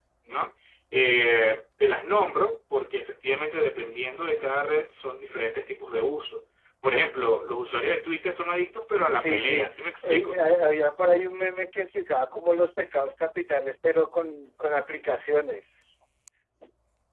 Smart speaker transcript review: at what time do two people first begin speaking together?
9 s

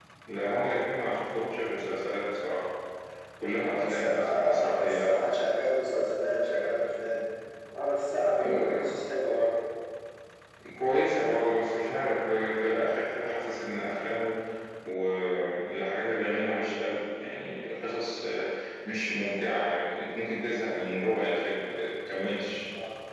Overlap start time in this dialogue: 4 s

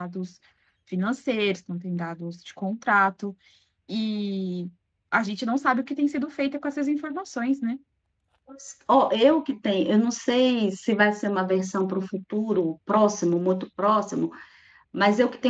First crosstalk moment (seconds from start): none

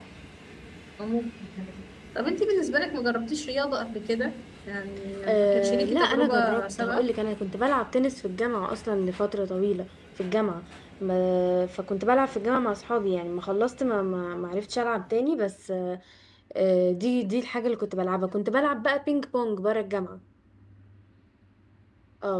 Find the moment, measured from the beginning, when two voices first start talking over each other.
5 s

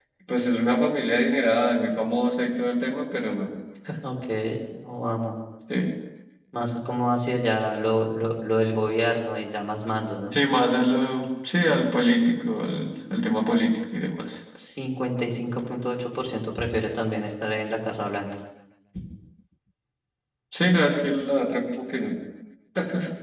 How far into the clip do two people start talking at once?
none

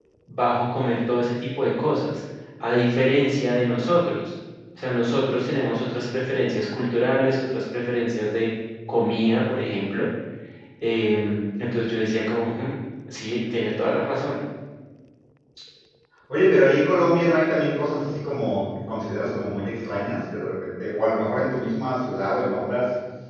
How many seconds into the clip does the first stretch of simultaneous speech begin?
none

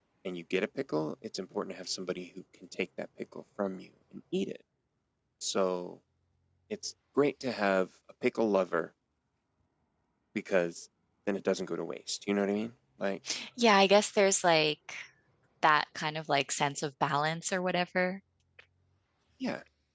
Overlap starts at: none

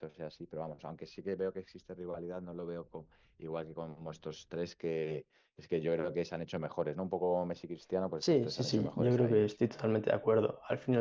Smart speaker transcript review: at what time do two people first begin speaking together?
8 s

